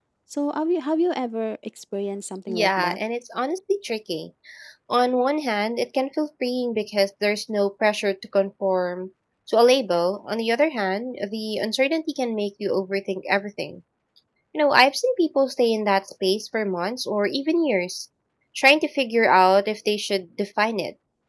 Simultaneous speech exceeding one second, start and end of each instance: none

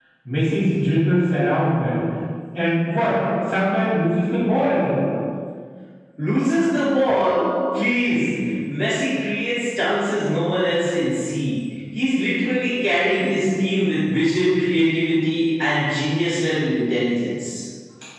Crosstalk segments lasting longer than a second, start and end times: none

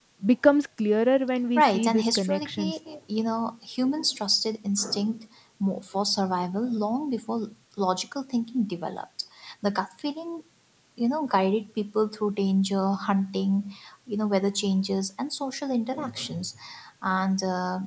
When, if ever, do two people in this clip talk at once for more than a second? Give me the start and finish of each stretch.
1.6-2.8

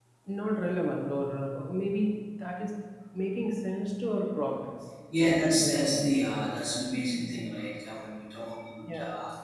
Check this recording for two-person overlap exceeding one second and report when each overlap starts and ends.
none

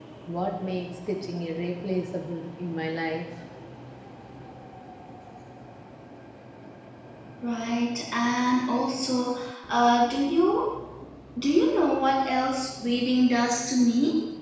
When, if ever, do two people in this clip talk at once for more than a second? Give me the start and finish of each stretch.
none

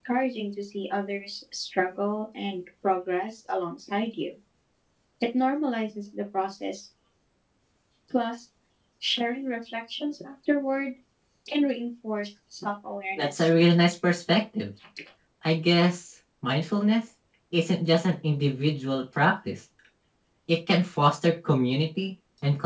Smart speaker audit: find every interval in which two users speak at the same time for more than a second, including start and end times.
none

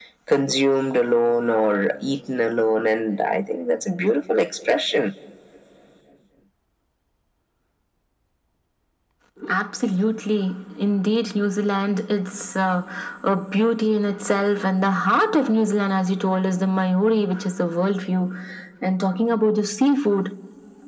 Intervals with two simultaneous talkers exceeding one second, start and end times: none

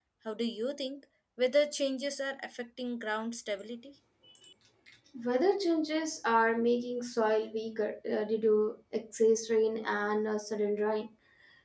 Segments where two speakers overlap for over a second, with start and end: none

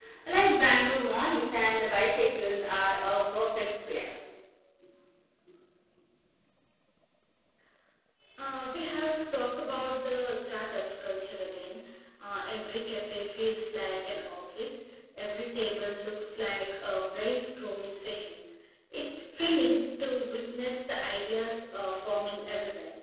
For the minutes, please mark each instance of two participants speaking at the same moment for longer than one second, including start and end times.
none

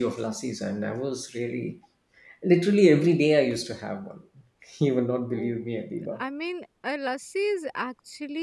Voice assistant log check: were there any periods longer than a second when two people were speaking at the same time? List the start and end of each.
none

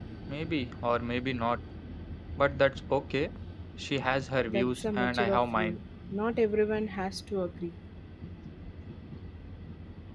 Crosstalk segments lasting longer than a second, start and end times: 4.5-5.8

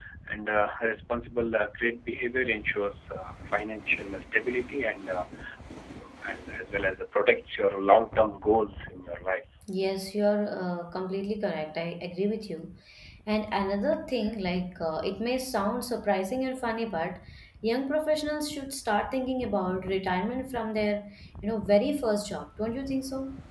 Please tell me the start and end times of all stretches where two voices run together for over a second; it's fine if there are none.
none

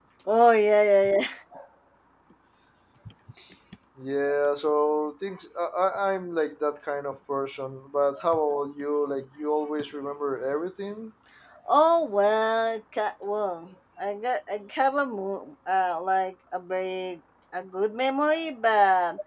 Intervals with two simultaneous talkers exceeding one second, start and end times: none

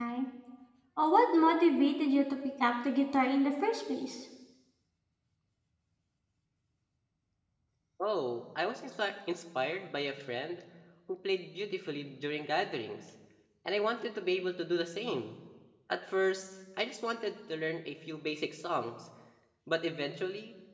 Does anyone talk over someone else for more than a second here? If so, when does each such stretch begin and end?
none

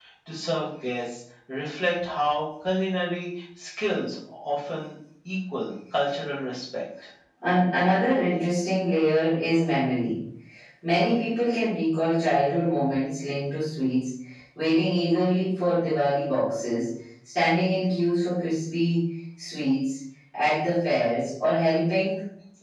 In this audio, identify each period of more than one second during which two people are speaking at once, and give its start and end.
none

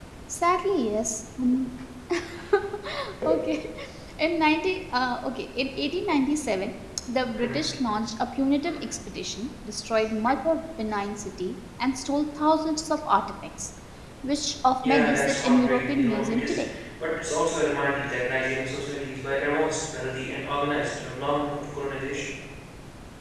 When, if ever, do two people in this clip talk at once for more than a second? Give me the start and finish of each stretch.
14.8-16.6

